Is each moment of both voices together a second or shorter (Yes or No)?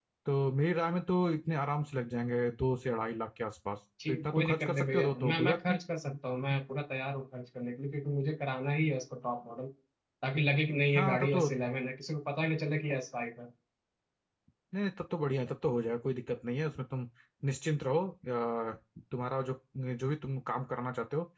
No